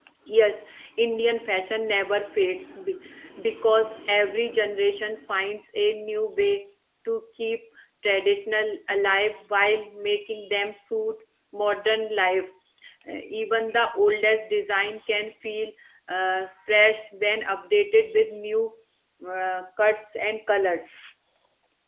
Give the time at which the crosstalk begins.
none

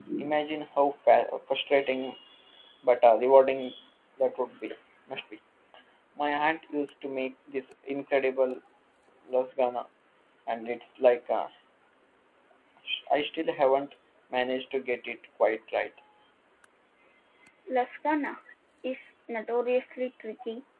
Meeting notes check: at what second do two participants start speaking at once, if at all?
none

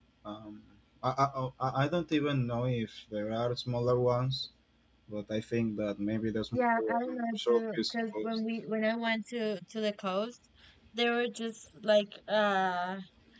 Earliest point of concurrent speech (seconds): 6.5 s

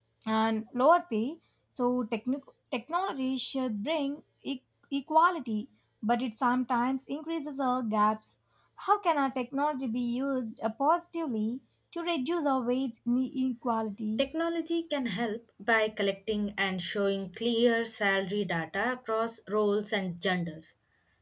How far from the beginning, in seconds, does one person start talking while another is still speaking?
none

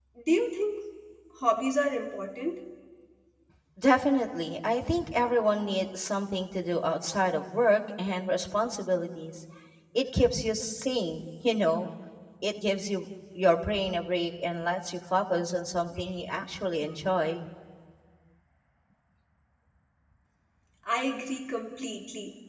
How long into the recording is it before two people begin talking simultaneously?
none

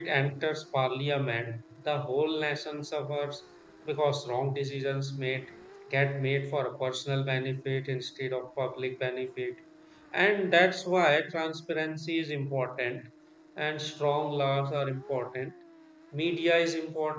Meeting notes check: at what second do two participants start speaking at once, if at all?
none

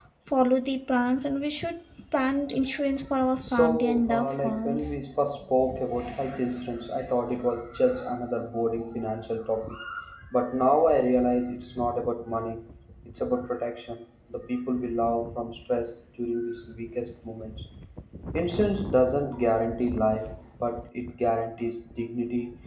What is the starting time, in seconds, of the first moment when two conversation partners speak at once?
3.4 s

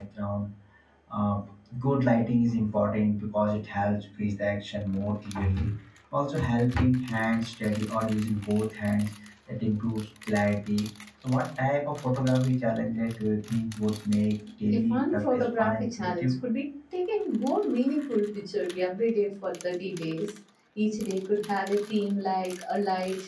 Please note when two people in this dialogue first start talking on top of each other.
14.7 s

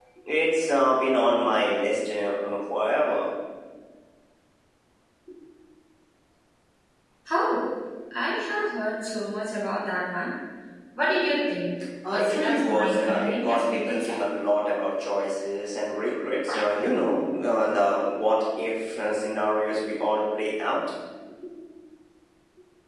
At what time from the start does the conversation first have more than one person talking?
12.0 s

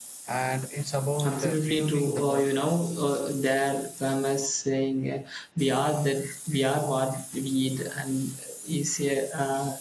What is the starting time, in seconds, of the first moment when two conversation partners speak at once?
1.2 s

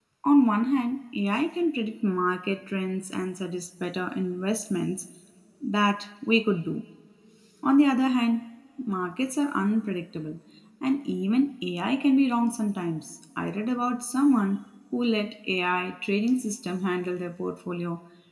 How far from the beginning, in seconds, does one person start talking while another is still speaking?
none

